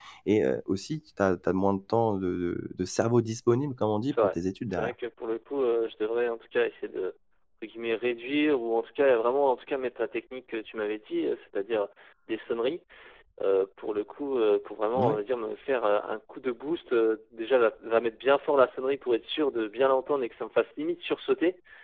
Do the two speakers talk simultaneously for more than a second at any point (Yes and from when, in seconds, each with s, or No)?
No